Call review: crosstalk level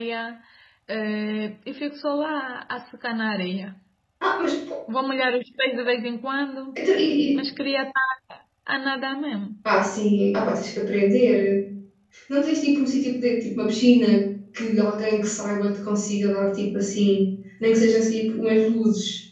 none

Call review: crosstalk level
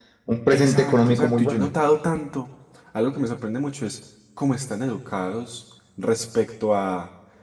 present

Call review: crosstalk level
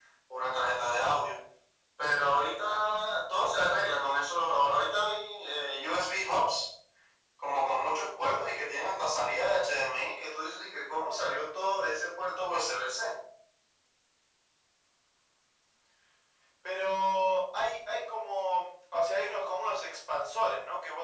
none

